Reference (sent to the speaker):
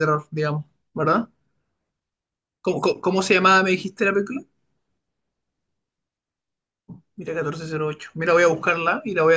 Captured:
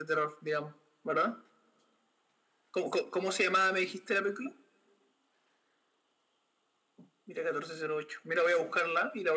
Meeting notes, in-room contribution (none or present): none